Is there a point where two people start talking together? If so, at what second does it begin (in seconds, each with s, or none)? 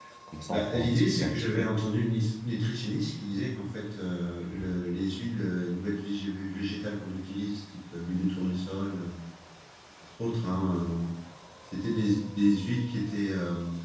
0.5 s